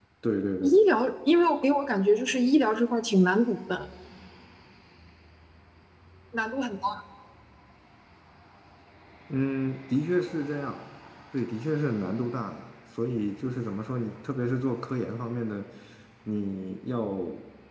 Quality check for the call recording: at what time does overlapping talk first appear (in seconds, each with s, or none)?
none